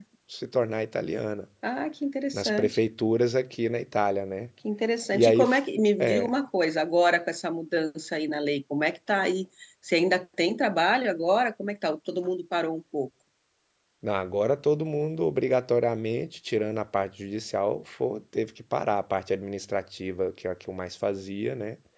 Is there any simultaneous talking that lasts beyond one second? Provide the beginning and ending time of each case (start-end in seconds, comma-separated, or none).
none